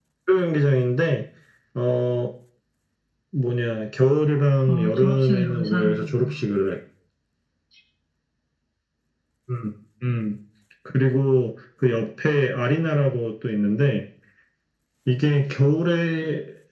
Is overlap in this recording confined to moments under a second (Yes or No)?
No